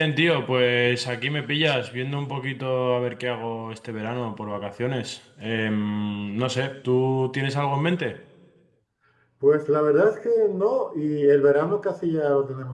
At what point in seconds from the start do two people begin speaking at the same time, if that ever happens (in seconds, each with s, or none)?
none